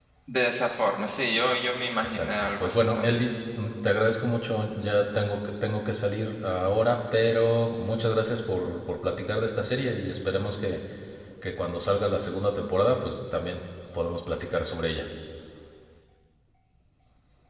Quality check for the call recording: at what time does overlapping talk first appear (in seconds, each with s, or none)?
2.0 s